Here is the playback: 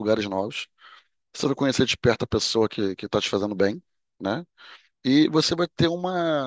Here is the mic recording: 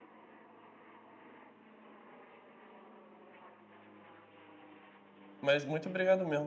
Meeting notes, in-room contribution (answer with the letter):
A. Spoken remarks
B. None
A